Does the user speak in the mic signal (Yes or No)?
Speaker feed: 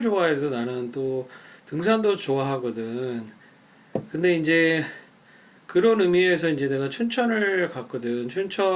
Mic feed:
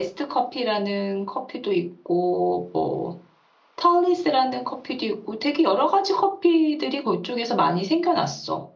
Yes